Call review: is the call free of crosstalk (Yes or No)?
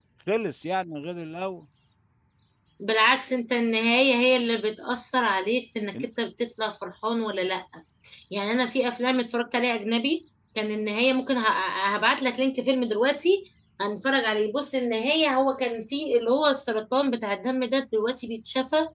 Yes